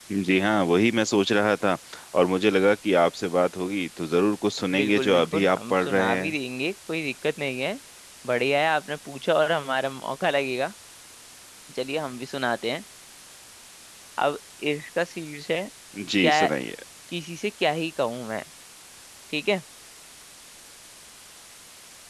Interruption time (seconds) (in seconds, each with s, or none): 4.7 s